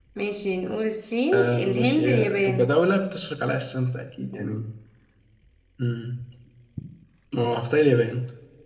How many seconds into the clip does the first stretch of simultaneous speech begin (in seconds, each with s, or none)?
1.3 s